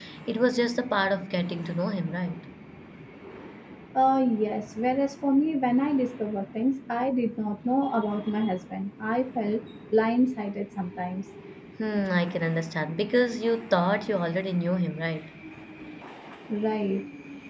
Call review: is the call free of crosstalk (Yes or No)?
Yes